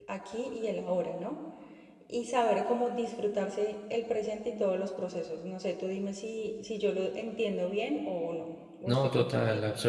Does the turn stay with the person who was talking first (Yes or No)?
No